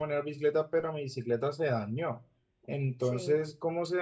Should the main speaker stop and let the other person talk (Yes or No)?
No